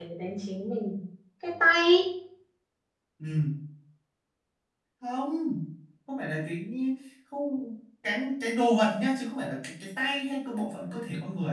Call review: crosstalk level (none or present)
none